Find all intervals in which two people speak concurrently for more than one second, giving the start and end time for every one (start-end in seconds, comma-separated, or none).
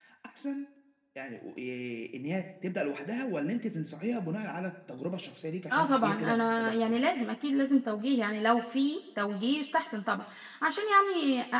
5.7-7.0